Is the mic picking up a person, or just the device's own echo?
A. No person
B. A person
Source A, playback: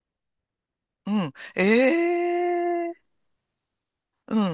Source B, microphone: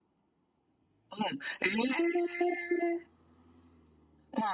A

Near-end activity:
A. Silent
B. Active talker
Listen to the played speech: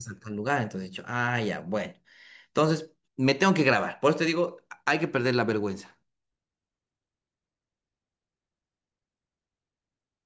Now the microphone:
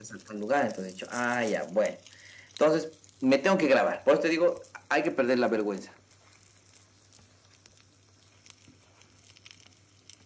A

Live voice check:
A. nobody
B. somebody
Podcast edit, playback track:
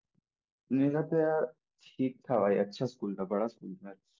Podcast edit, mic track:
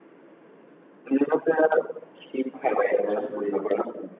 B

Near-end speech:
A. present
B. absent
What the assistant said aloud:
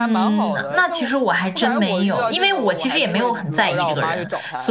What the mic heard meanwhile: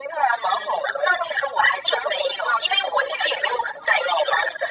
B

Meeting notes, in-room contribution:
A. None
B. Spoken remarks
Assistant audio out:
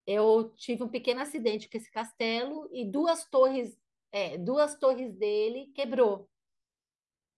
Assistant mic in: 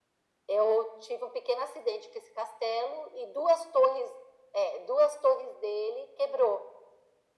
A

